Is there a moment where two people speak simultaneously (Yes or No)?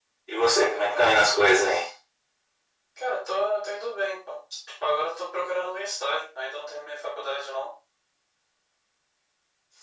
Yes